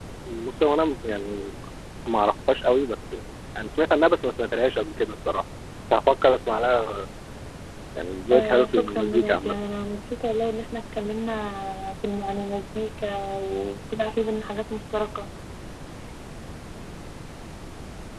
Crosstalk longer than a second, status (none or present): present